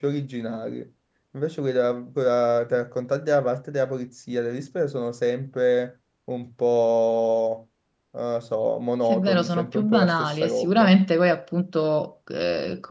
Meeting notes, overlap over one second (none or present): present